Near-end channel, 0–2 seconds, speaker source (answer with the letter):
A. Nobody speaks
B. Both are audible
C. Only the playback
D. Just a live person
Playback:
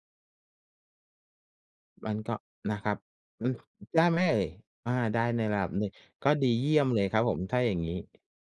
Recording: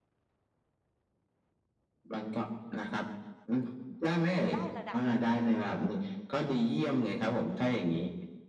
A